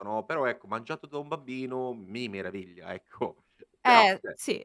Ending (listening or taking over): taking over